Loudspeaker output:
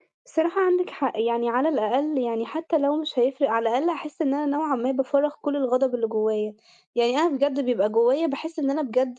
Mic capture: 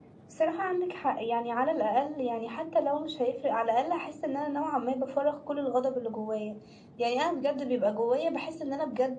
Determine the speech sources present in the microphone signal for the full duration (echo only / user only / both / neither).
echo only